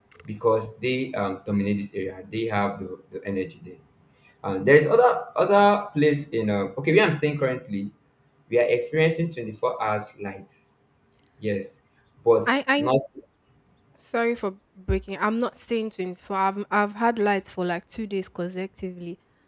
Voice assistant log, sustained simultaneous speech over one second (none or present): none